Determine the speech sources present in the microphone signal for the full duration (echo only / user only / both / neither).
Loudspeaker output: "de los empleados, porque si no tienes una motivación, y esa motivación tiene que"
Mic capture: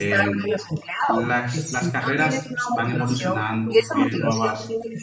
both